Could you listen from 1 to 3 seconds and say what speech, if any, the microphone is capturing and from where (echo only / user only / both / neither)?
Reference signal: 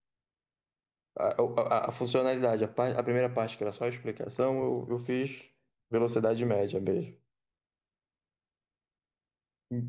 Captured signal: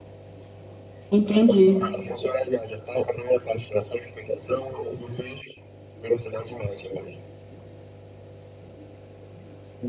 both